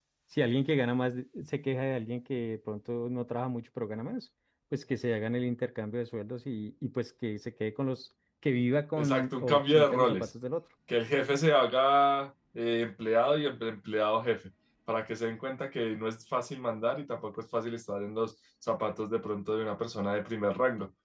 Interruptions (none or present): present